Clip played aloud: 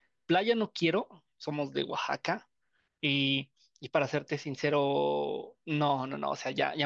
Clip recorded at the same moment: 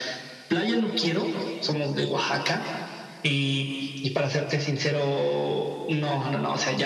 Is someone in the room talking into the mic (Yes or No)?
No